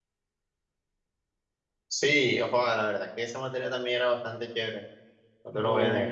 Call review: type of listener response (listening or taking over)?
taking over